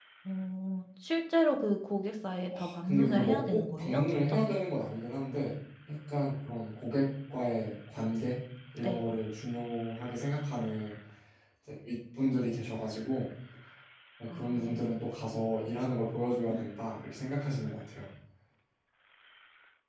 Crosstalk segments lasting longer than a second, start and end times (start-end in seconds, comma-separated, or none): 2.5-4.4